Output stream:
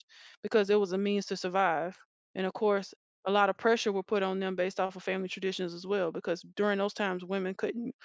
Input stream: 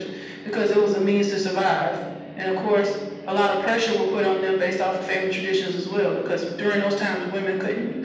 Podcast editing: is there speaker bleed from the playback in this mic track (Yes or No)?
Yes